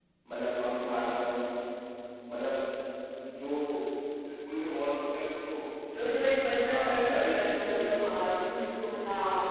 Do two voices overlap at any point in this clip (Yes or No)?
Yes